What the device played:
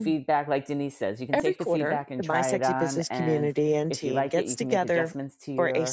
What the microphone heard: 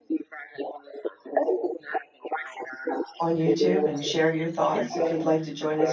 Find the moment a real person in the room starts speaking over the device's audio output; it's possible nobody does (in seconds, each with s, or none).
3.2 s